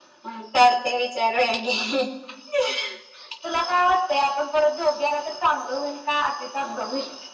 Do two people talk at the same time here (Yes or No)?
No